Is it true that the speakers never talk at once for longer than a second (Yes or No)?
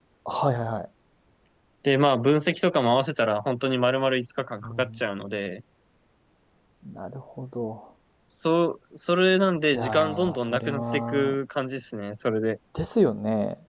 No